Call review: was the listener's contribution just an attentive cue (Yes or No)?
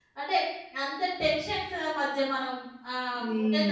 Yes